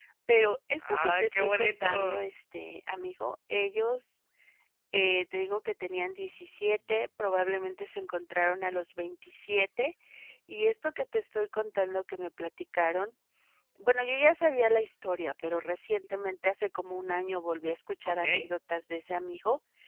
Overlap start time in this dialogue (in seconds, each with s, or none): 0.8 s